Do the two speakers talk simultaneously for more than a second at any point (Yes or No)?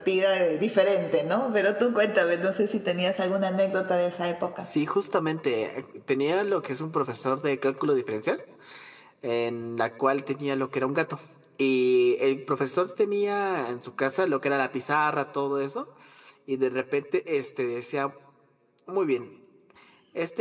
No